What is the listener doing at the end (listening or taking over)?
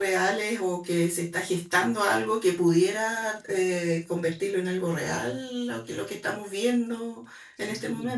taking over